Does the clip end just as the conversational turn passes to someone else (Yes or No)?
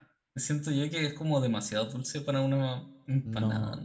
Yes